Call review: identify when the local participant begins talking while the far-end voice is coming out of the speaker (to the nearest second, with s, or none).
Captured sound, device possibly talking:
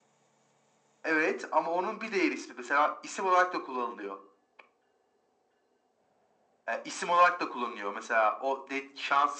none